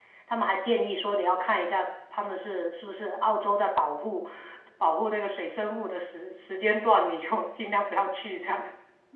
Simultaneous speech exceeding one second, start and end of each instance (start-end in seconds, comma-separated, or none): none